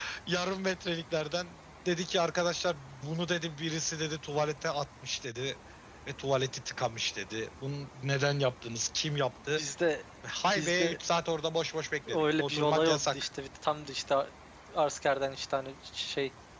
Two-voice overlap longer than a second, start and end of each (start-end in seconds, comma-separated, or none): 12.1-13.3